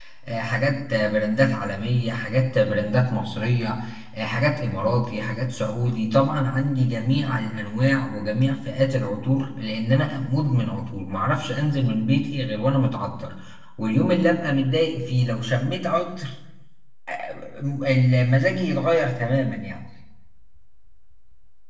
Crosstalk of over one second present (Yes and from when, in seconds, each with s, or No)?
No